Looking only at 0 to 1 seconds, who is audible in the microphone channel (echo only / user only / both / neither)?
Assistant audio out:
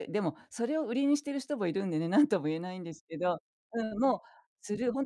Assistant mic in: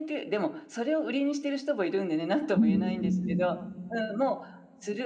echo only